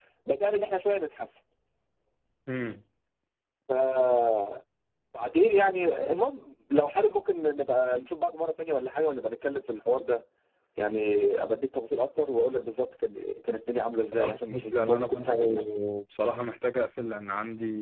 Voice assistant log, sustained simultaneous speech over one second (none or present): present